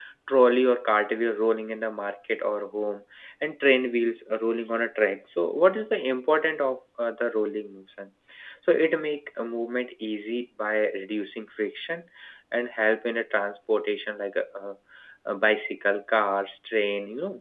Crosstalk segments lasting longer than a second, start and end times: none

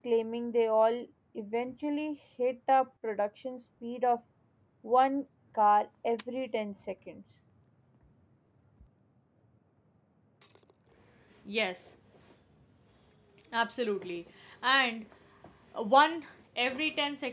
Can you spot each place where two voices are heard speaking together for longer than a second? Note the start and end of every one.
none

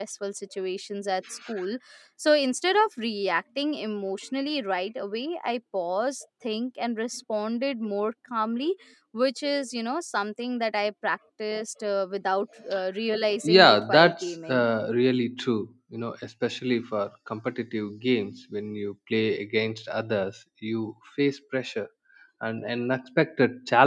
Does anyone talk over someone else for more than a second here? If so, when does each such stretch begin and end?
13.4-14.7

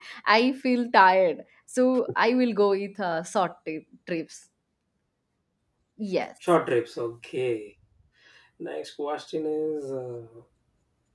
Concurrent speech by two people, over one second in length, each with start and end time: none

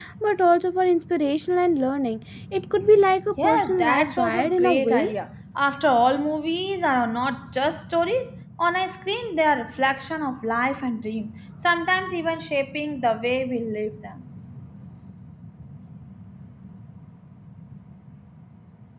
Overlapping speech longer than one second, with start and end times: 3.4-5.0

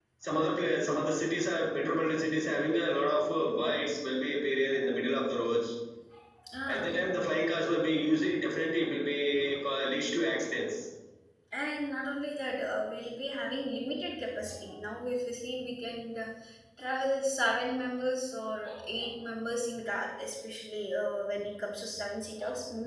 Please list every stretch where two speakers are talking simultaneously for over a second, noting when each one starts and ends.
none

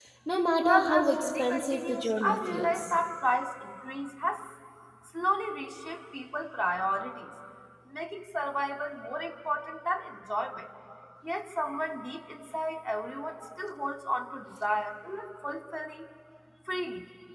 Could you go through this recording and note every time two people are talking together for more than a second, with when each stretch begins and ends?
0.6-2.9

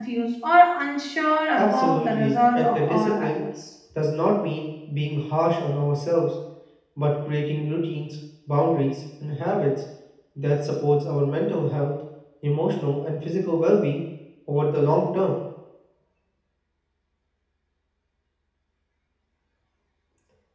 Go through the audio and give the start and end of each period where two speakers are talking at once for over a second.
1.6-3.3

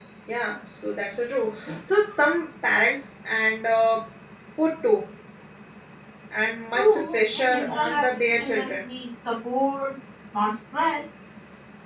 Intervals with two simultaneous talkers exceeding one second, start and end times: 6.7-8.8

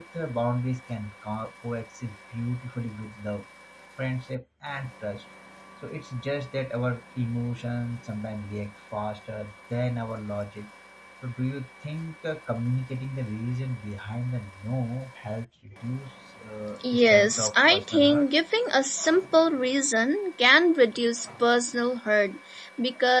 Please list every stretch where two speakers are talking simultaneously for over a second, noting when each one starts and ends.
16.9-18.2

